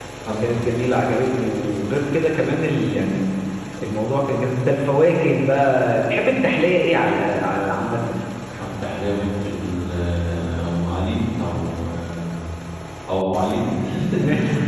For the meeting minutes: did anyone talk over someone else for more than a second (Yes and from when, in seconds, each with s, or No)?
No